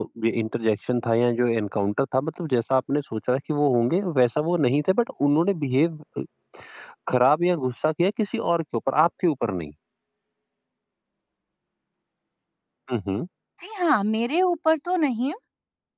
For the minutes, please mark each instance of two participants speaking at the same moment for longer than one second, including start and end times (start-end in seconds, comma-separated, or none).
none